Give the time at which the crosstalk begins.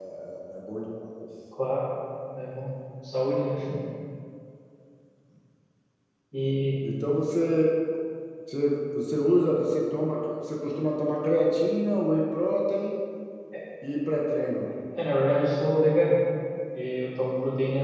none

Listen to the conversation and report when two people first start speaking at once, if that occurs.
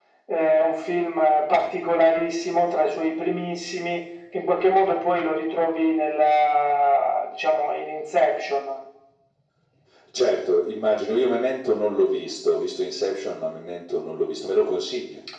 none

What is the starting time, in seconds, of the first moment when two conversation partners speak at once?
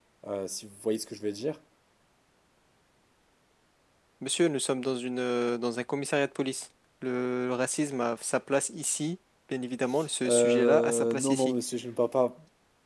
10.2 s

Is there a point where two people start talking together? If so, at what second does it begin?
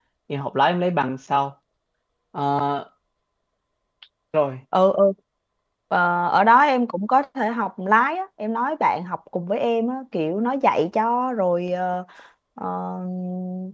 none

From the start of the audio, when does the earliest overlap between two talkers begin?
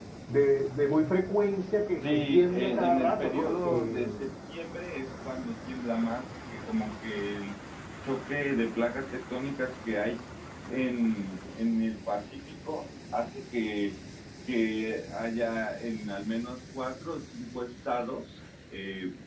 2.0 s

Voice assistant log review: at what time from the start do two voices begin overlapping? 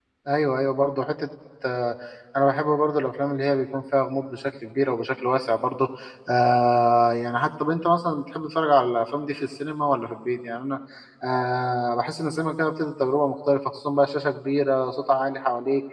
none

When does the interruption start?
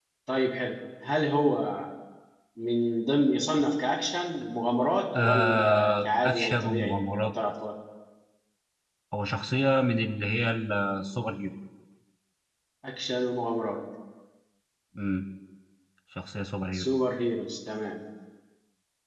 5.1 s

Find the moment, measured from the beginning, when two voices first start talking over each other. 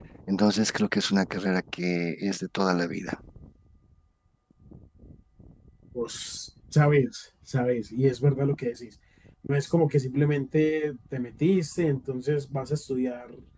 none

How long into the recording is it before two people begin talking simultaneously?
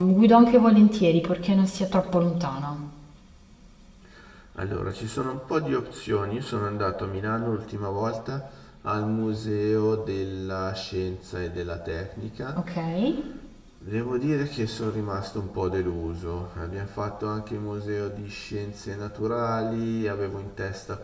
none

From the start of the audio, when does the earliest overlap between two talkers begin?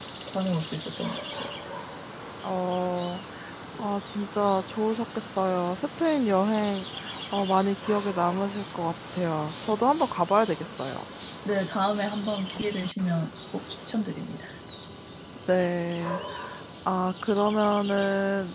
none

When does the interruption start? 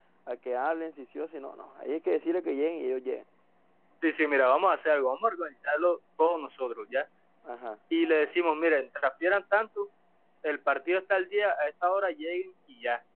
none

